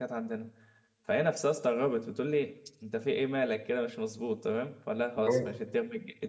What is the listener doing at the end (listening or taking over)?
listening